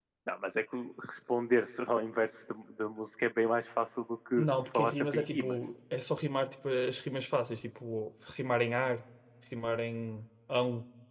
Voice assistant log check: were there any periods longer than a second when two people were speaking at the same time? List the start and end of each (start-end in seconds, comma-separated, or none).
4.4-5.6